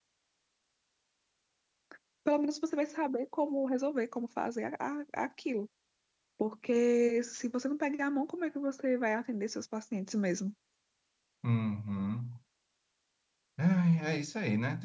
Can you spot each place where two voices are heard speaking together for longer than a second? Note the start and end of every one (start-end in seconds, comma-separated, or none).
none